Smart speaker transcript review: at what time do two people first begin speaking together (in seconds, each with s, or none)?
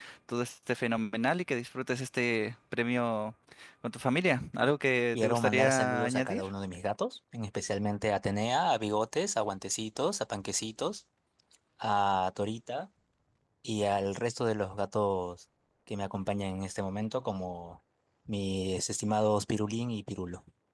5.1 s